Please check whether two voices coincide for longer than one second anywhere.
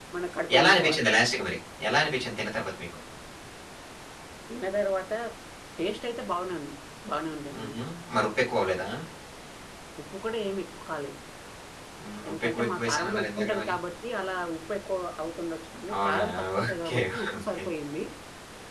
Yes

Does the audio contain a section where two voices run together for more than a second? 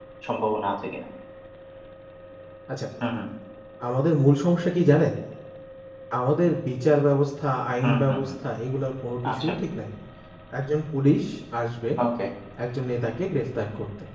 No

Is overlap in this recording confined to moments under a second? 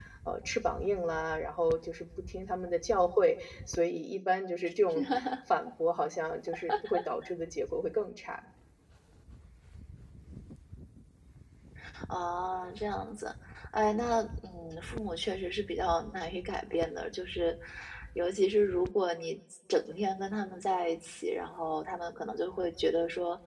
Yes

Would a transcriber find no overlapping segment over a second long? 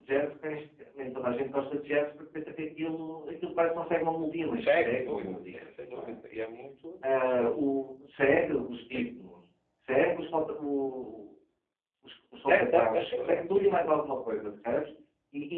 No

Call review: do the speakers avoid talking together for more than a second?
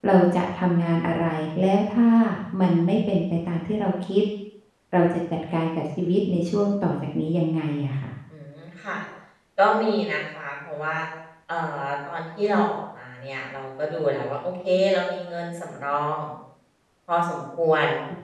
Yes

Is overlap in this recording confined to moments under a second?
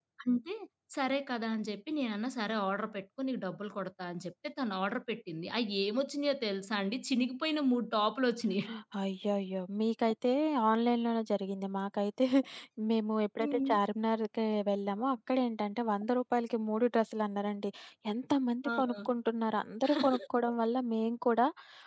Yes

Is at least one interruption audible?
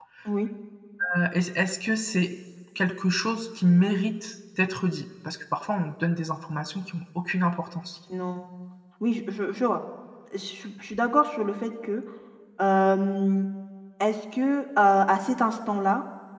No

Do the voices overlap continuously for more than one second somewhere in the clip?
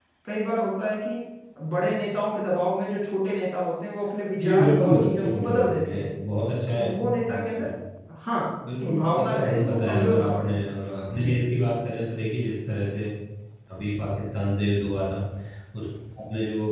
Yes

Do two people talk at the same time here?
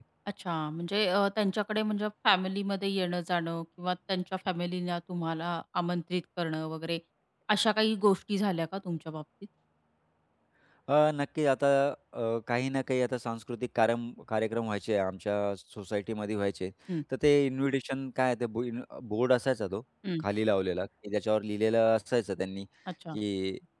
No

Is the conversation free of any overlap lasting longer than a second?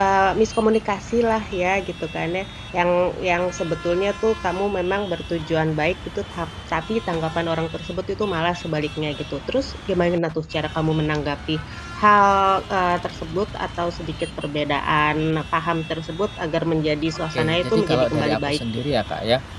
No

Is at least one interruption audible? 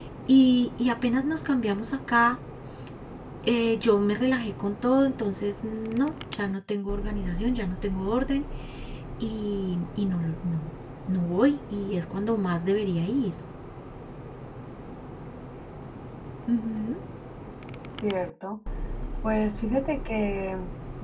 No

